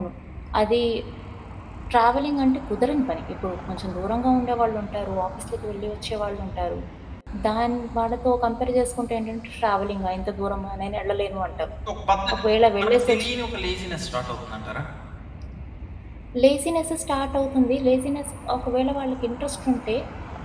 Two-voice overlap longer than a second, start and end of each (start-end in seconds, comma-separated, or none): none